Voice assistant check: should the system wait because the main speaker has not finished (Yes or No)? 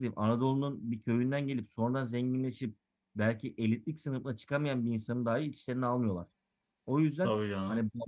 Yes